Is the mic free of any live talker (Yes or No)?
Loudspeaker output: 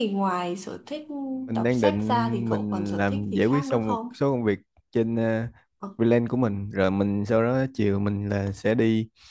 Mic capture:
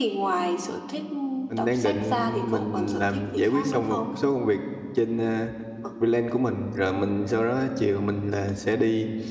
Yes